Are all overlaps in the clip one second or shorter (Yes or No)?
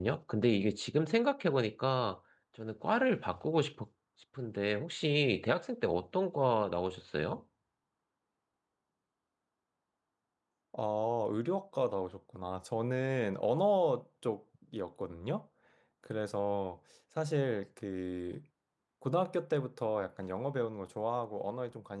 Yes